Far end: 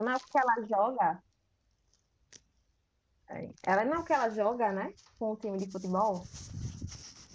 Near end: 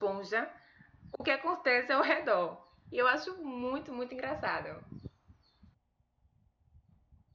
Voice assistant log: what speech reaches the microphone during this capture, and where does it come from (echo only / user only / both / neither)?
user only